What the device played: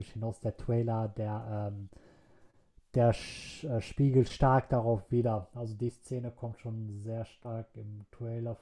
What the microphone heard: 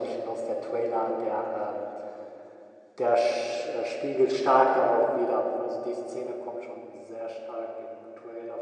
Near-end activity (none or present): none